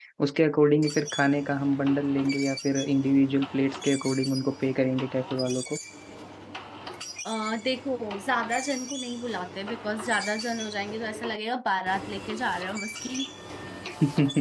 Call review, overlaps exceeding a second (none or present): none